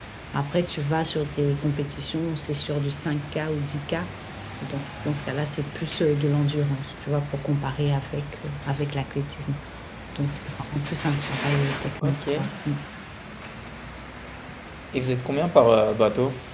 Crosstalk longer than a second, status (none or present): none